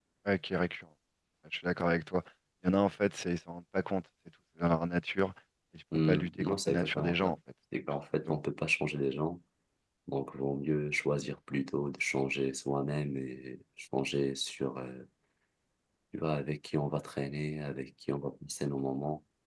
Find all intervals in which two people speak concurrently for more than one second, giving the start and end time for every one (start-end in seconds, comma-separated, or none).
5.9-7.4